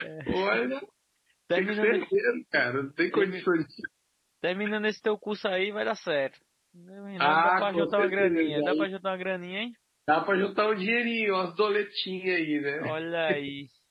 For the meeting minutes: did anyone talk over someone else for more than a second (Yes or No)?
Yes